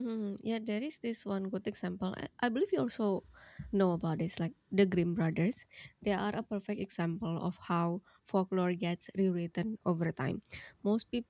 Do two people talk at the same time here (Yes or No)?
No